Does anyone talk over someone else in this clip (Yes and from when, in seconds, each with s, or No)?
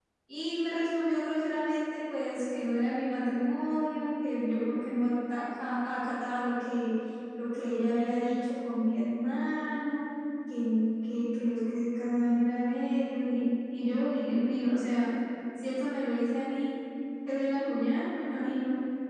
No